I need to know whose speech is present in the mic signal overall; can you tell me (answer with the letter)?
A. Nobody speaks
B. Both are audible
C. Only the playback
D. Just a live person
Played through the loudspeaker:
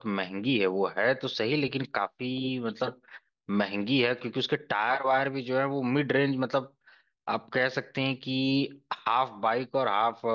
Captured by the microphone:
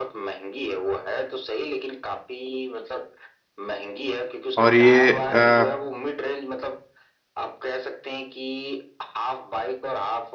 B